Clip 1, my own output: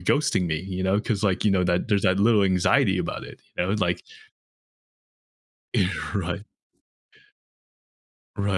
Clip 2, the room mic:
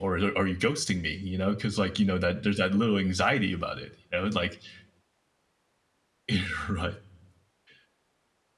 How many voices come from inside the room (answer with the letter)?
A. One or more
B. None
B